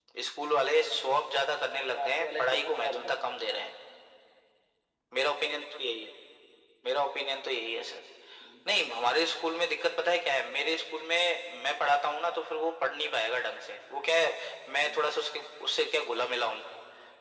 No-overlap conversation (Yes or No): No